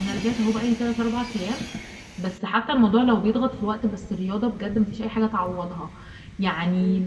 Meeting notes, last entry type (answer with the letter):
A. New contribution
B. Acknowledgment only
B